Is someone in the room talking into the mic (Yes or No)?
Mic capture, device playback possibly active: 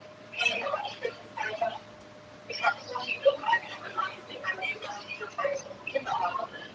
No